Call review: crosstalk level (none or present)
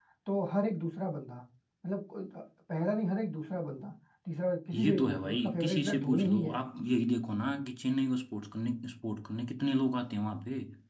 present